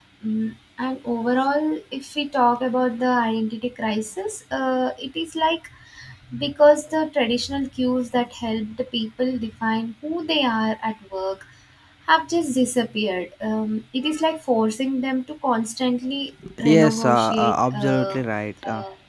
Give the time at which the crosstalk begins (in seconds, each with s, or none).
16.4 s